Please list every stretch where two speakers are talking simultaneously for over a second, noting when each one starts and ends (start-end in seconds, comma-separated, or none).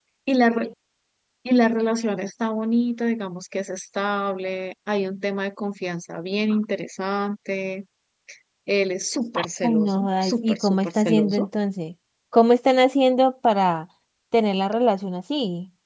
9.4-11.5